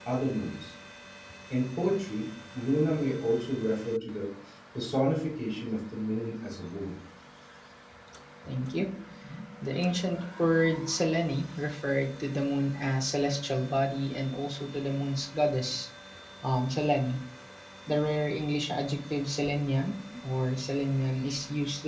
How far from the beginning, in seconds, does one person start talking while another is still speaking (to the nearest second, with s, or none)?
none